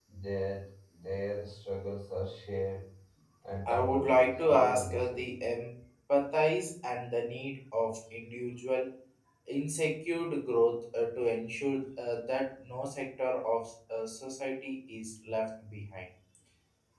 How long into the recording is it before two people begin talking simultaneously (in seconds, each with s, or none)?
3.7 s